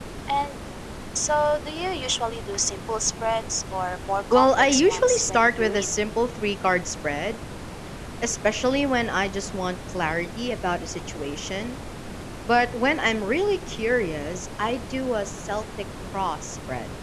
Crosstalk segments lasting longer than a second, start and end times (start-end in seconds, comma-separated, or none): 4.3-5.8